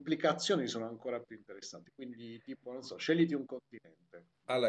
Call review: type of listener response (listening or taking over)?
taking over